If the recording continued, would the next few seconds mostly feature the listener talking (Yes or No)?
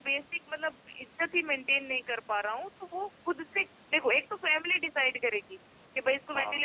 No